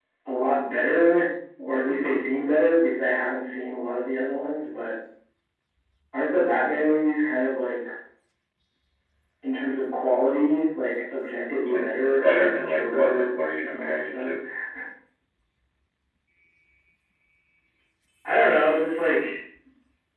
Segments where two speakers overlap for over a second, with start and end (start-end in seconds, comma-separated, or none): 12.2-14.3